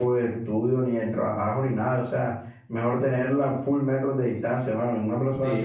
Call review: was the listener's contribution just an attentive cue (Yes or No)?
Yes